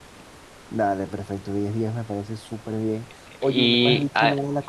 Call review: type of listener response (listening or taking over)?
listening